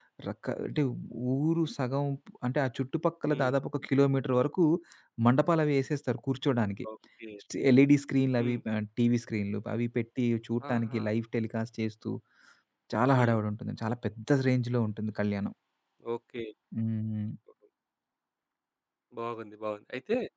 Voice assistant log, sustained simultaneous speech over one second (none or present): none